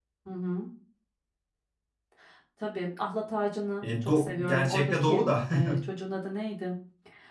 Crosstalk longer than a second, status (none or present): present